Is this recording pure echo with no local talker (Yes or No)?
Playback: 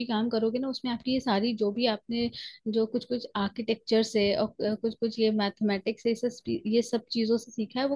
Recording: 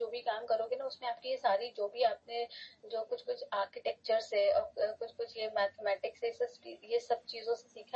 Yes